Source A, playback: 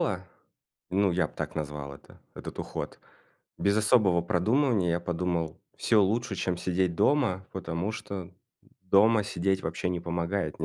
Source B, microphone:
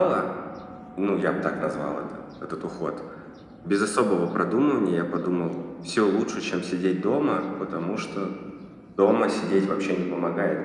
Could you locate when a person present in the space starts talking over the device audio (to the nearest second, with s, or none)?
none